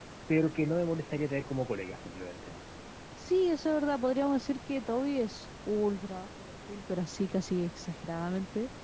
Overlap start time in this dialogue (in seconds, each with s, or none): none